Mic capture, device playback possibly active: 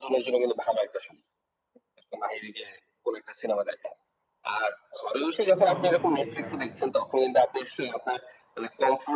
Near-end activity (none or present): present